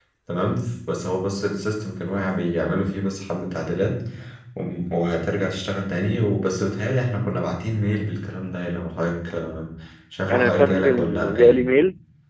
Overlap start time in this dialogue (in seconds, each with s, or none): 10.3 s